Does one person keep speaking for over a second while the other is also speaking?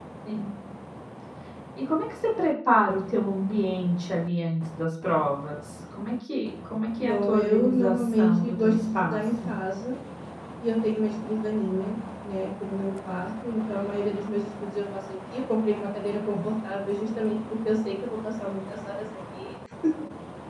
Yes, from 7.0 s

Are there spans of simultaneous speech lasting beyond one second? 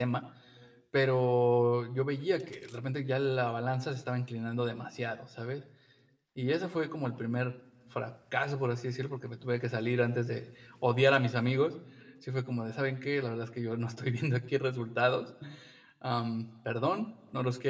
No

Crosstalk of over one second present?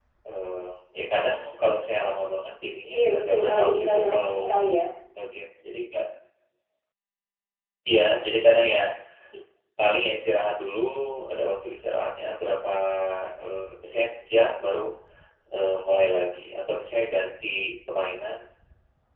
Yes, from 2.9 s

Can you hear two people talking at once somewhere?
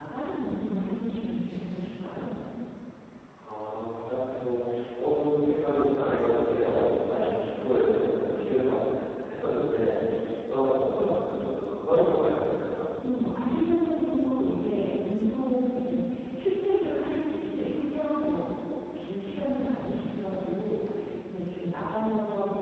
No

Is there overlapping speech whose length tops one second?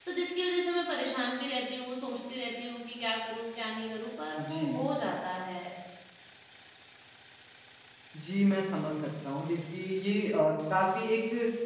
No

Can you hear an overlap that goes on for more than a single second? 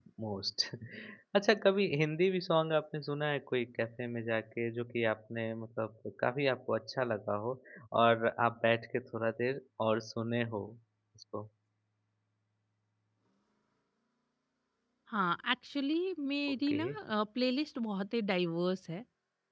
No

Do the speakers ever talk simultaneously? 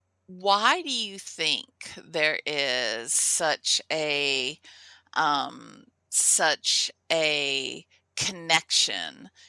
No

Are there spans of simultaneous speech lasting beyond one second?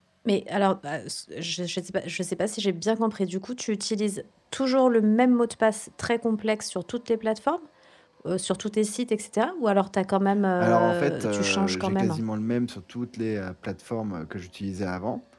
Yes, from 10.6 s

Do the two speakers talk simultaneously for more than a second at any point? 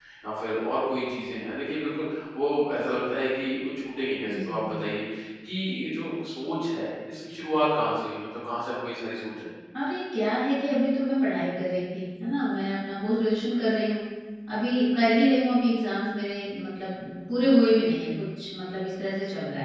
No

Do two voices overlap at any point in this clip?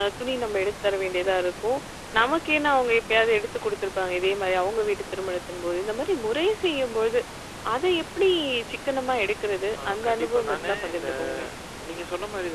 Yes, from 9.8 s

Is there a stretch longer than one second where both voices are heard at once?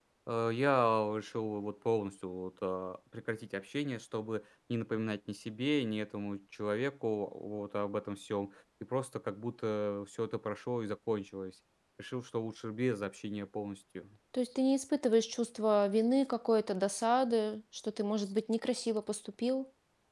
No

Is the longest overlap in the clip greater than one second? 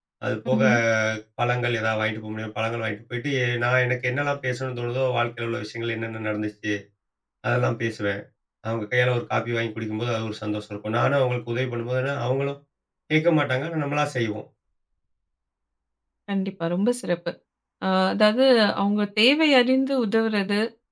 No

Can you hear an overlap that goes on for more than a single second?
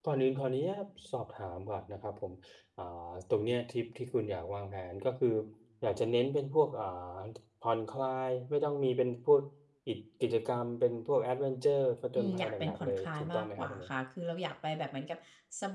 Yes, from 12.2 s

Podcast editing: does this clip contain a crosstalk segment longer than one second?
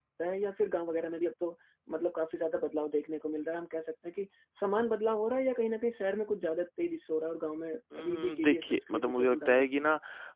Yes, from 7.9 s

